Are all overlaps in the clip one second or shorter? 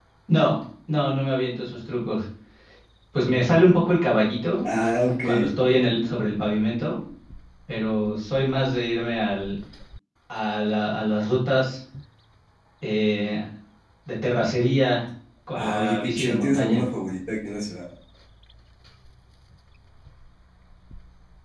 No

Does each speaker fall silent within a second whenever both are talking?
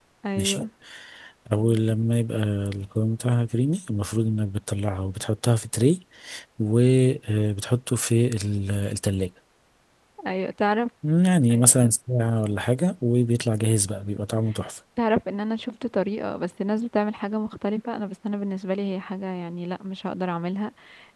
Yes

